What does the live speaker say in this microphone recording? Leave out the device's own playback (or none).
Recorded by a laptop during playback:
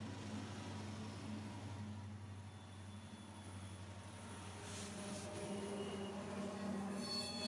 none